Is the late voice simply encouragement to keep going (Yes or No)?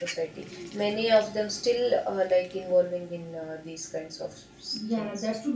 No